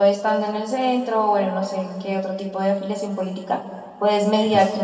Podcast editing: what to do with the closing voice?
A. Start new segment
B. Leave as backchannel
B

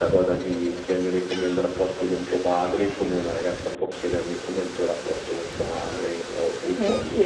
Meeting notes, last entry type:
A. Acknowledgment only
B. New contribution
B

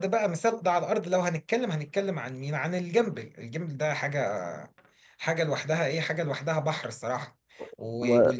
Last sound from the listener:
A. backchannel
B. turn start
A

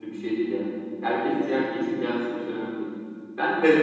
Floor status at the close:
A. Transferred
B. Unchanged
A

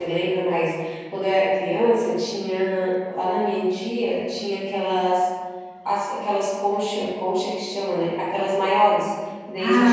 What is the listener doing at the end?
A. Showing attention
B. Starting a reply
A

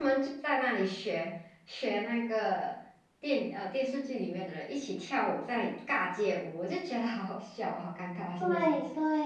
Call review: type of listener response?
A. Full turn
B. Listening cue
A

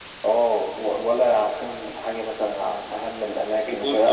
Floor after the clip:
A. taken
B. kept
B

